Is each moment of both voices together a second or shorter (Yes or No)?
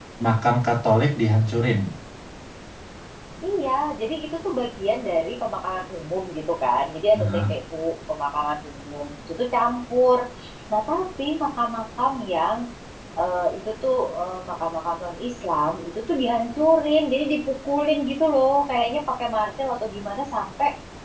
Yes